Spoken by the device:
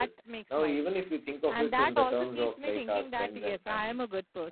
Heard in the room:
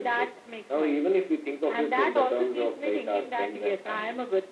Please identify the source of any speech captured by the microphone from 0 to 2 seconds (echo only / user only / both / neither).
echo only